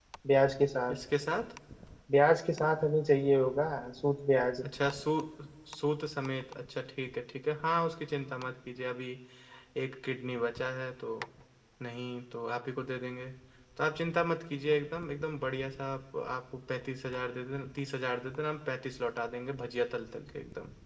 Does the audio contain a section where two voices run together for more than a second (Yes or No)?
No